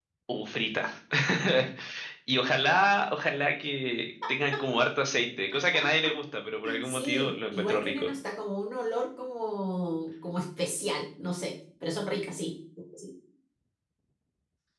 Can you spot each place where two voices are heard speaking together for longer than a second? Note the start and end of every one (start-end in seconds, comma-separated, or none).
6.8-8.1